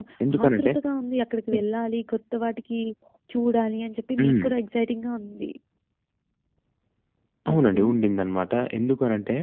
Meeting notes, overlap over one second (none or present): none